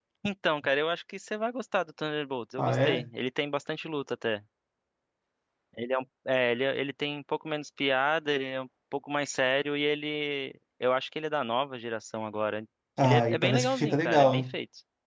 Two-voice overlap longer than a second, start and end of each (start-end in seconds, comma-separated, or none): 13.0-14.5